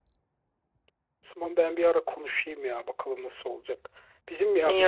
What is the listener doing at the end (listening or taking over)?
listening